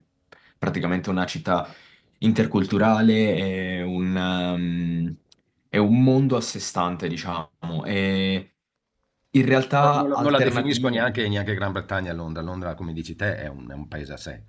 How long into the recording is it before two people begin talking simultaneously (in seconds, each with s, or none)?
9.8 s